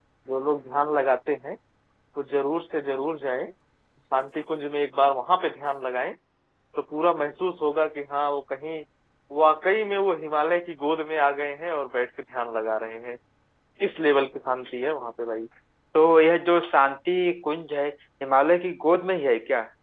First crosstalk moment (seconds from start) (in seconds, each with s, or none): none